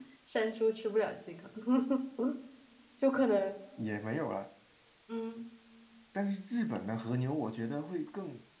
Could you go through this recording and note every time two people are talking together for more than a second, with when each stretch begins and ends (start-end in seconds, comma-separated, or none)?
none